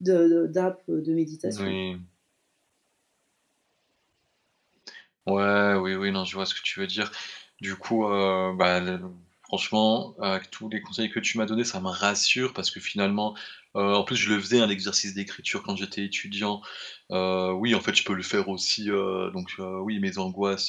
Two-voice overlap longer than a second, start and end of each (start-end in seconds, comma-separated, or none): none